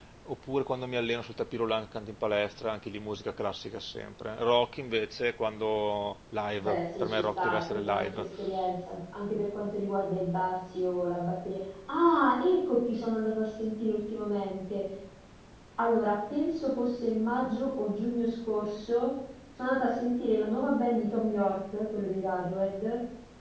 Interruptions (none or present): present